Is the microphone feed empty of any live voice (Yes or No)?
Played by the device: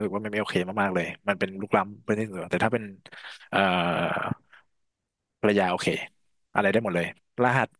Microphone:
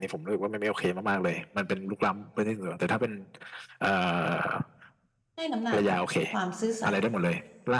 No